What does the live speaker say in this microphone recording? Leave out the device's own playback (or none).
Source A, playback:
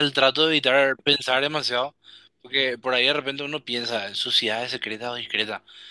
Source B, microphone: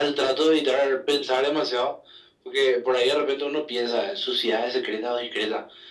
none